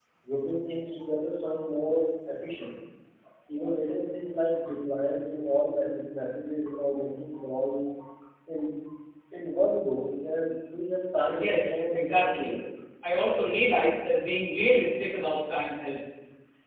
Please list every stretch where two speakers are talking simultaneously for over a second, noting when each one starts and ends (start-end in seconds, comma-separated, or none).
11.1-12.5